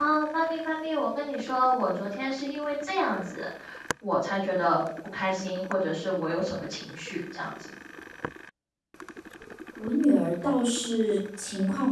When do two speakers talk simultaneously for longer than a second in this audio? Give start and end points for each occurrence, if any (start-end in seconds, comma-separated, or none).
none